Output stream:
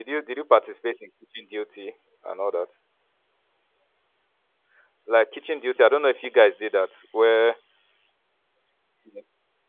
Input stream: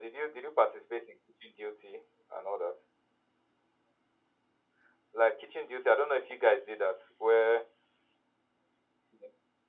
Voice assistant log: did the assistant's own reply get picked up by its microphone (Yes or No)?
Yes